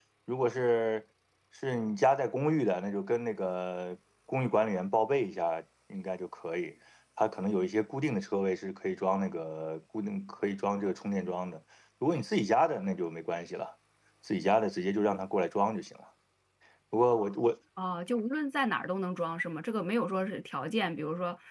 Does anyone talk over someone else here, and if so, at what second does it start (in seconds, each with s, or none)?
none